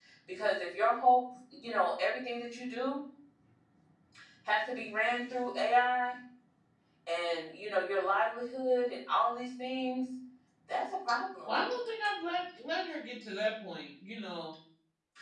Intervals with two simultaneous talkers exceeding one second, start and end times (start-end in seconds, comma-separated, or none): none